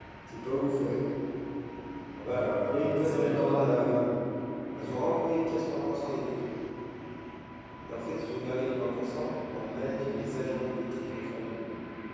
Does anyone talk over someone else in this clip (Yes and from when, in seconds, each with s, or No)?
Yes, from 2.2 s